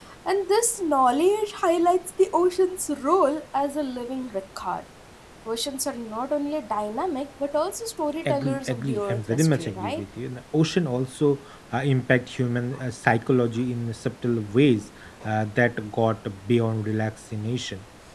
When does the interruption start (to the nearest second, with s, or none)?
8 s